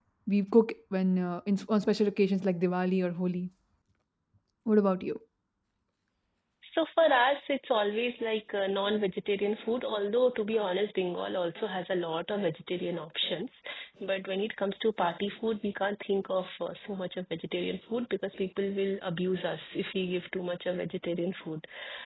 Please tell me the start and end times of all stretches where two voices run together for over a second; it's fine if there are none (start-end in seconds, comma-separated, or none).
none